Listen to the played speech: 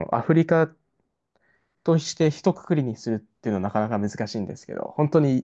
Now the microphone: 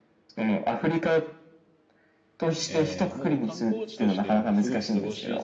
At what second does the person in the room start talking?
3 s

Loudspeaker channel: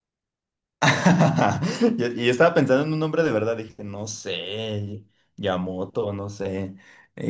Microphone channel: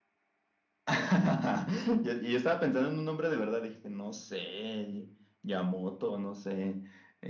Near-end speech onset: none

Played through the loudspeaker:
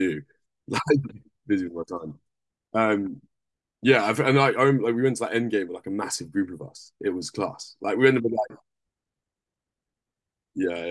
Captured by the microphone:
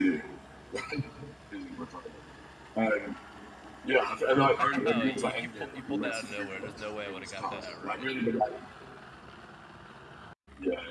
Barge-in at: 5 s

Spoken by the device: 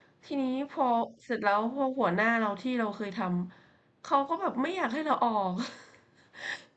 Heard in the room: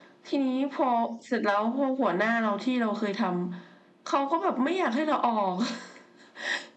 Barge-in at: none

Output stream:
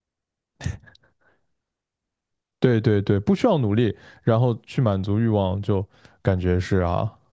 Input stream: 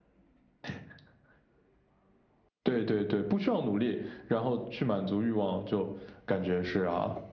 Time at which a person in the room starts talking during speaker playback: none

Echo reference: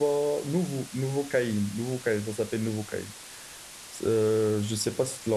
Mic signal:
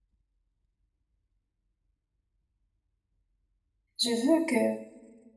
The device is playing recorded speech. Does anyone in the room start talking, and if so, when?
4 s

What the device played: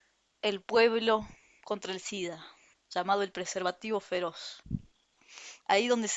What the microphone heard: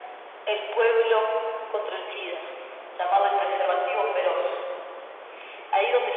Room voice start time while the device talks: none

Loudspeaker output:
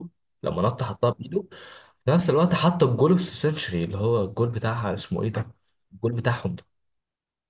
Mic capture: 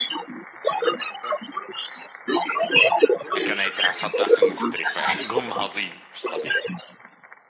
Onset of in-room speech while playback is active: 3 s

